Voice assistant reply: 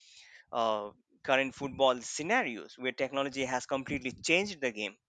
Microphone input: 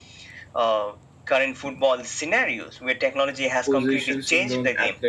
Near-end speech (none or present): present